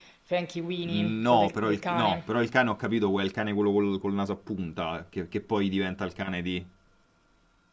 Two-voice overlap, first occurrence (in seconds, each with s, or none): 0.8 s